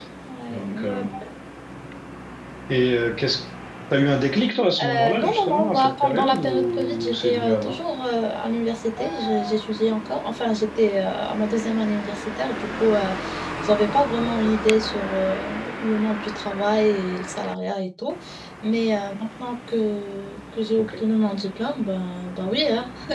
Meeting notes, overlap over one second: present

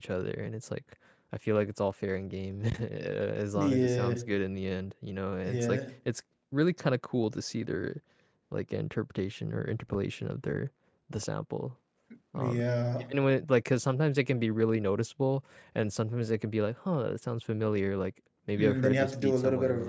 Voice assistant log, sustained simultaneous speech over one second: present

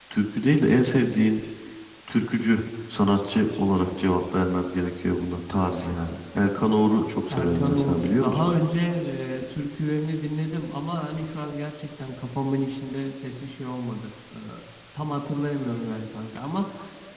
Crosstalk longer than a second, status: present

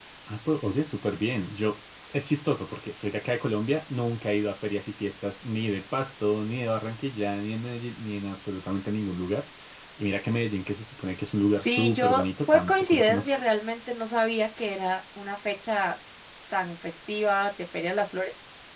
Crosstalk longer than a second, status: present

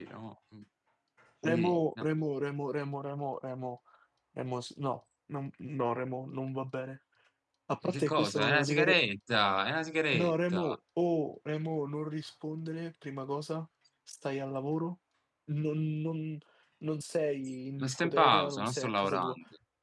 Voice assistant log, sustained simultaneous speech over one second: present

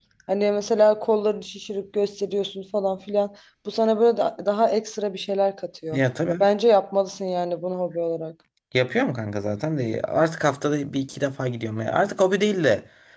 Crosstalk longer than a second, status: none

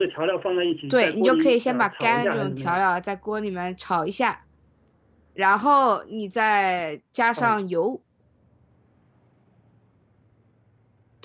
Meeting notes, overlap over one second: present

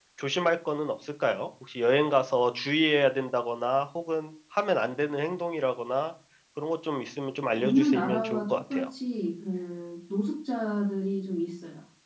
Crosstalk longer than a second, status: present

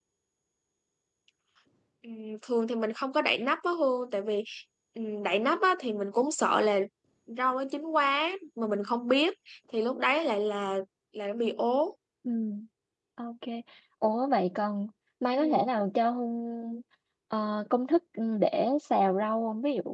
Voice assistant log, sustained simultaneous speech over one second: none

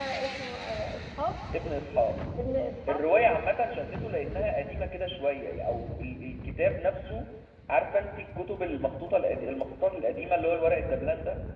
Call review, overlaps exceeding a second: none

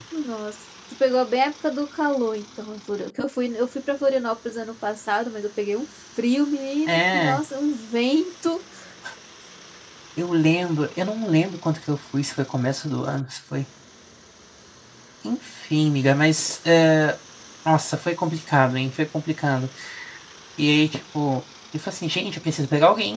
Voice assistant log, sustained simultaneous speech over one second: none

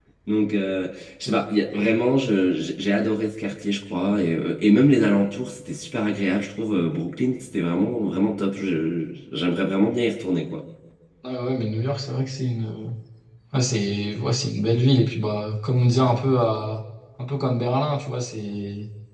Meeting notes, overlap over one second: none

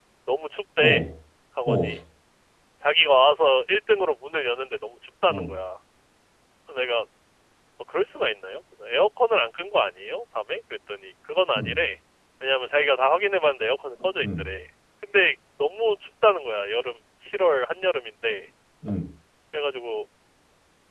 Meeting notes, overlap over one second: none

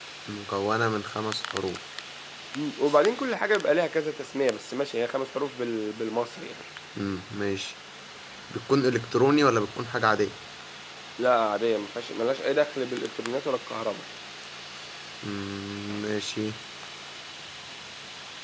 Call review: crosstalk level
none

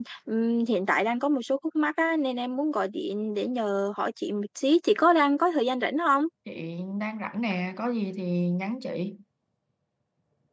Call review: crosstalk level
none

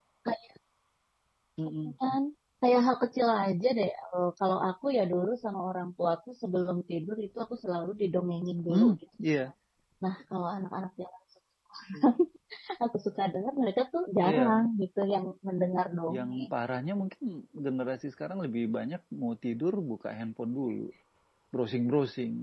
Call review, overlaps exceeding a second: none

